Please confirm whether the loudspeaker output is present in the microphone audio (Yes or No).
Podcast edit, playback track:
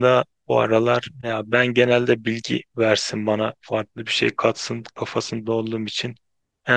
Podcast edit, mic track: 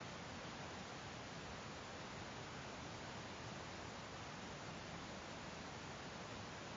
No